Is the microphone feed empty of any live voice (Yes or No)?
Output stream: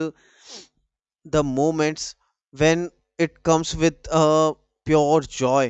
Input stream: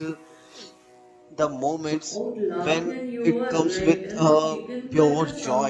No